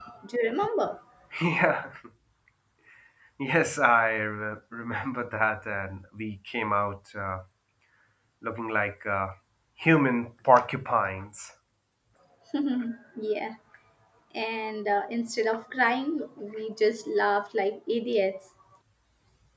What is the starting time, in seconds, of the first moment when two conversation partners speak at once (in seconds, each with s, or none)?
none